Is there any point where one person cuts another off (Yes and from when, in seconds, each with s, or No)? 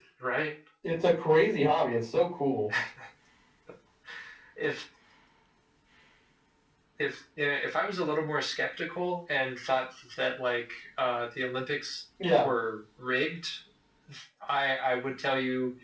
No